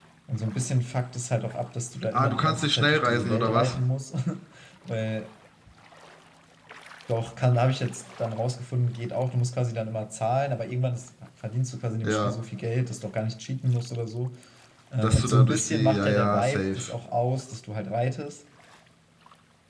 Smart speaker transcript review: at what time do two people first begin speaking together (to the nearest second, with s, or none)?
2 s